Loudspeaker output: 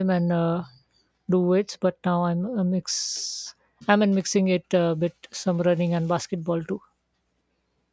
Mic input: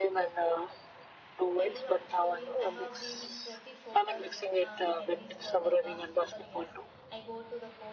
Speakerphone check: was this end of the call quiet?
No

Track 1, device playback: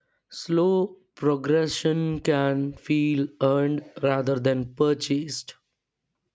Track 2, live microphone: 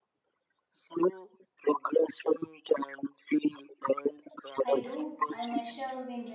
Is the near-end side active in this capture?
Yes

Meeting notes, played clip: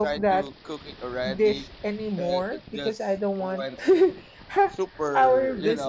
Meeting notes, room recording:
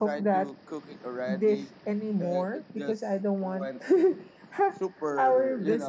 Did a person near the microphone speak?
No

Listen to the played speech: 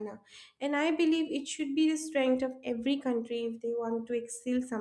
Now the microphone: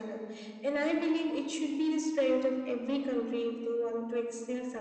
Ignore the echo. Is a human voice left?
No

